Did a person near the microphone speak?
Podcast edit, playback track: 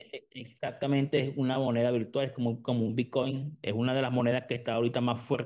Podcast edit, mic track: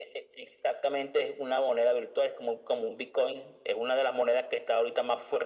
No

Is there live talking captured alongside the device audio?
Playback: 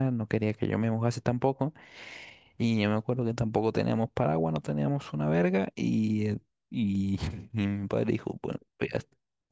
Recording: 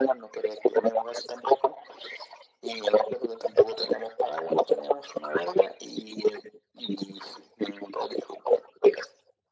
No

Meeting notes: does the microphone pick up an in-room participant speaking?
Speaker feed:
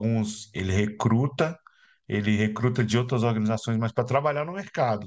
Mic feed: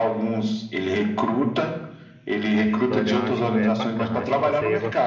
Yes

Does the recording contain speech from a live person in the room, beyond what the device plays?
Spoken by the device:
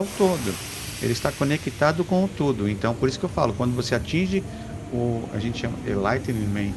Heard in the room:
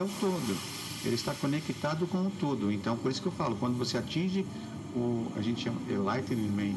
No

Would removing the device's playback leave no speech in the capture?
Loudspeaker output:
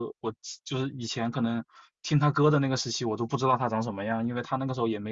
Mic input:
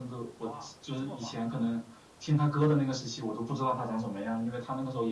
No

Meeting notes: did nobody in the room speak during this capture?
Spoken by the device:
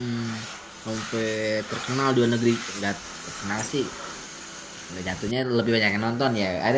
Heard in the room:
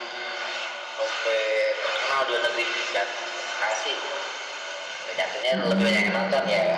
No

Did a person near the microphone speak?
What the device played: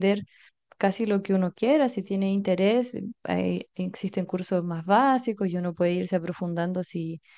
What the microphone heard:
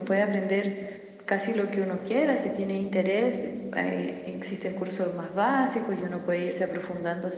No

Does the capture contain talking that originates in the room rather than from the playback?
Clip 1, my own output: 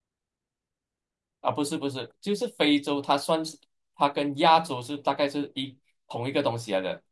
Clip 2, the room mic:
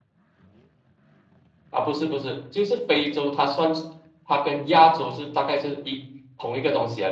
No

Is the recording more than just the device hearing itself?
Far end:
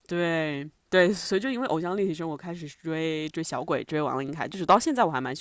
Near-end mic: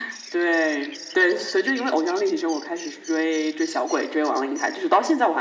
No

